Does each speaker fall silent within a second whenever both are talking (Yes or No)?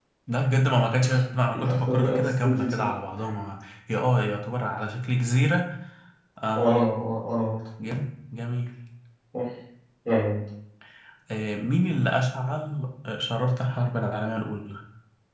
No